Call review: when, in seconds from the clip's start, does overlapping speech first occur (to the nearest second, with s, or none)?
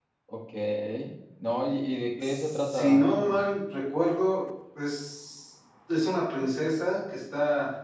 2 s